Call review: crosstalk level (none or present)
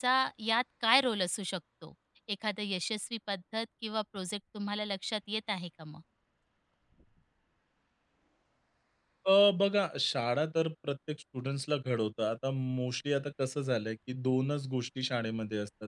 none